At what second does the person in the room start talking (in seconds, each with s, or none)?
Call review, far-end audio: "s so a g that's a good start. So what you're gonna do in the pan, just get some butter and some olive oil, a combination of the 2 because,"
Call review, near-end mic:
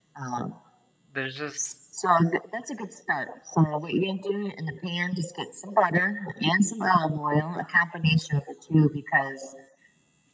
1.1 s